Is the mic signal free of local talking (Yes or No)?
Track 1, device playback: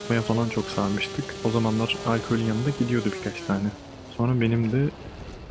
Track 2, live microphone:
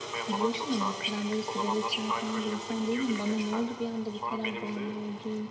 No